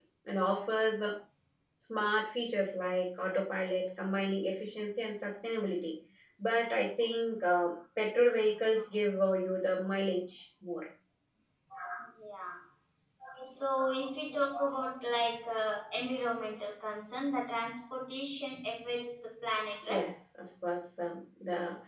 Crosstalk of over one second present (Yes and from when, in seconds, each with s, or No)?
No